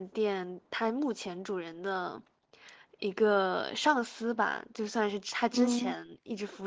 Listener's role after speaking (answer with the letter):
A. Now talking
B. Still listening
B